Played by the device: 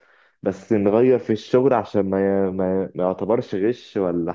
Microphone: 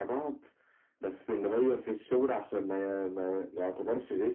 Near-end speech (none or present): none